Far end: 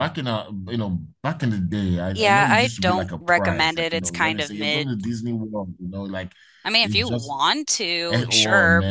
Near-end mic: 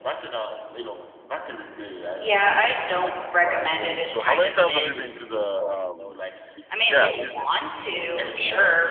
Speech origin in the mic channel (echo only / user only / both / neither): both